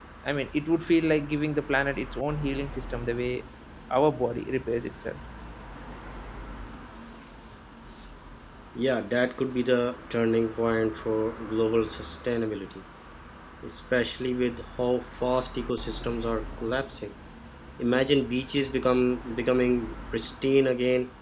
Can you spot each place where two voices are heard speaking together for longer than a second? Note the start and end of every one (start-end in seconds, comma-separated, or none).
none